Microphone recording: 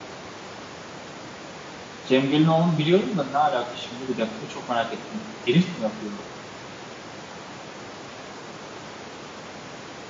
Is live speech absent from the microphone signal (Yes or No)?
No